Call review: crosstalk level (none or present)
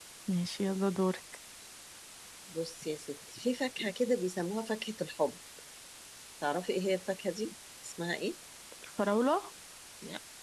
none